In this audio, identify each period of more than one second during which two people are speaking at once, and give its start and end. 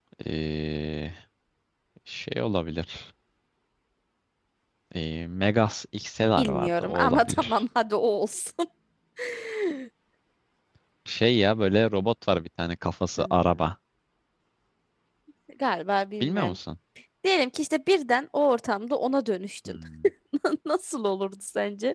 6.3-7.6

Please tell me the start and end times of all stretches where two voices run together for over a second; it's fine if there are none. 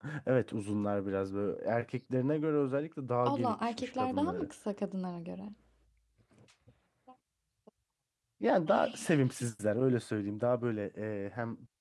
3.2-4.5

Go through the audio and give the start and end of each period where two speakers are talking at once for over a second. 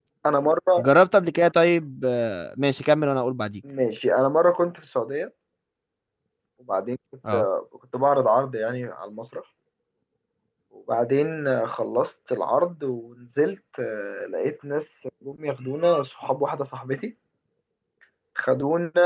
none

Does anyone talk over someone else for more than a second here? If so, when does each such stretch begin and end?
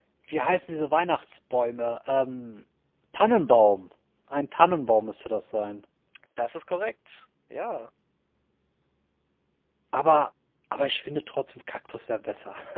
none

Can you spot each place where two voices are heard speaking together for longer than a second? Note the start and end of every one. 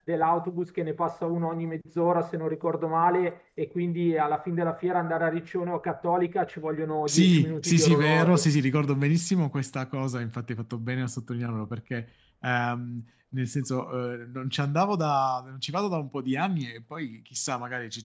7.1-8.5

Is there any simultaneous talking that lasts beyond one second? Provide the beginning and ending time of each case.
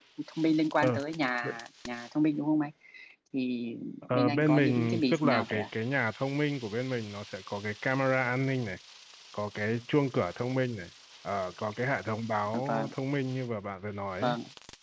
4.1-5.7

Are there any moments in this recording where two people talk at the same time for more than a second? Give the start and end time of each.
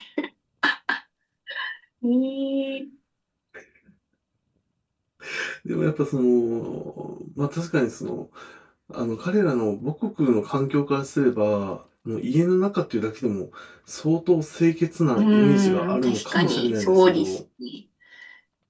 15.2-17.3

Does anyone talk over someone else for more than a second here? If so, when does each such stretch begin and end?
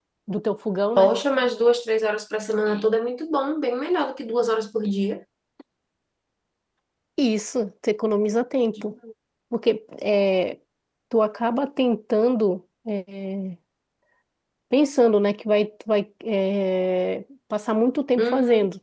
none

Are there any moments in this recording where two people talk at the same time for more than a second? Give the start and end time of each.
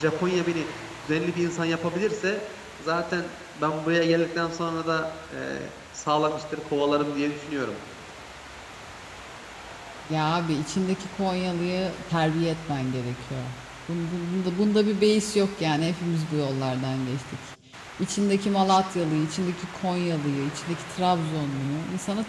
none

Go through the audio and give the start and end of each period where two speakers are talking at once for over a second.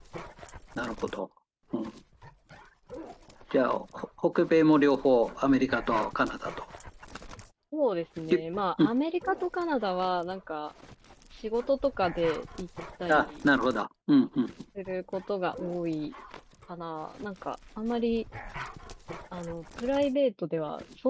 none

